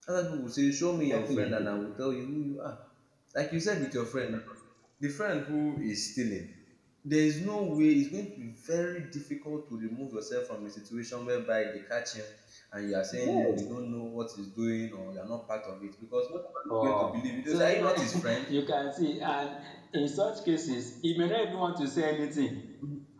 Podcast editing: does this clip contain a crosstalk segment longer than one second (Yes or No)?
Yes